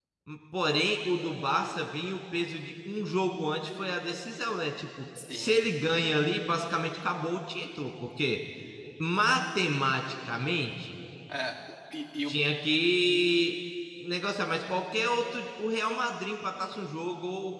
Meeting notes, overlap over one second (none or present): none